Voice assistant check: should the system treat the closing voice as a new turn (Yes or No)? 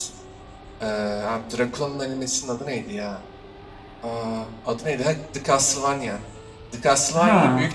No